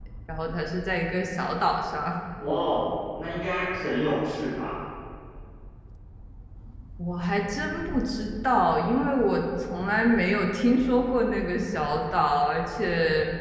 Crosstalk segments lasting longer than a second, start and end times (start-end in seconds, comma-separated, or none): none